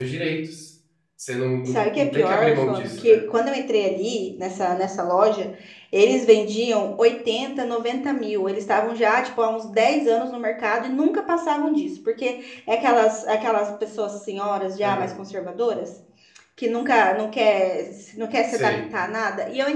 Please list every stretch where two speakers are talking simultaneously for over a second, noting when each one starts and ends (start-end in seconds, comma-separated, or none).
1.6-3.2